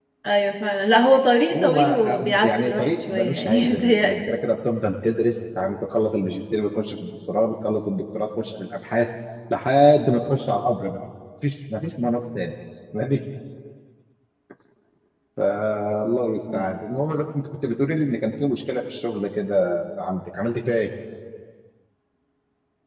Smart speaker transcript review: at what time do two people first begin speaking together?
1.5 s

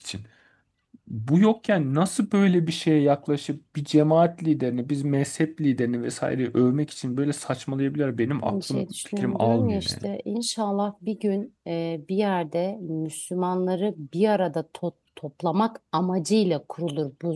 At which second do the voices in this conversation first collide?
8.4 s

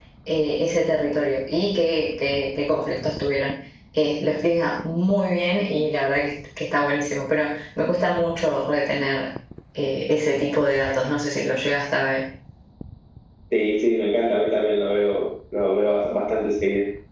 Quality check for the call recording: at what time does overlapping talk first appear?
none

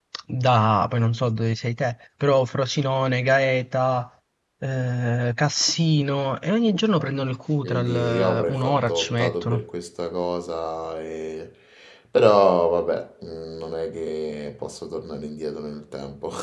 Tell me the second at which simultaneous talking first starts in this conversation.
7.6 s

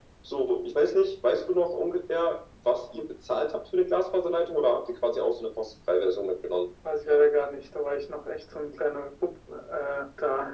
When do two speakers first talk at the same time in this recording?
none

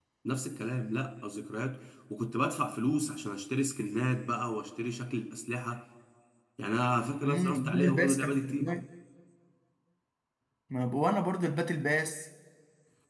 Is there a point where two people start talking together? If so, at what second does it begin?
7.2 s

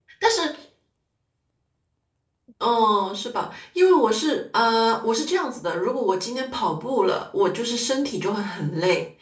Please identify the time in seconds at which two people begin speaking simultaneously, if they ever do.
none

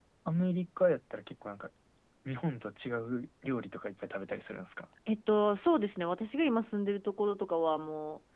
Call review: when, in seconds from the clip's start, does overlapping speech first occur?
none

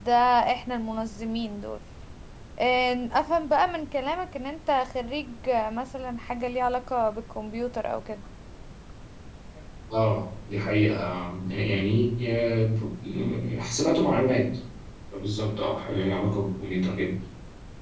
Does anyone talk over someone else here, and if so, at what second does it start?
none

